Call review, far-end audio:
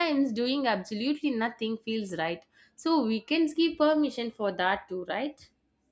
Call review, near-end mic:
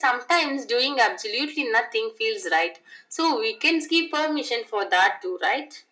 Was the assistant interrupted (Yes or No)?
No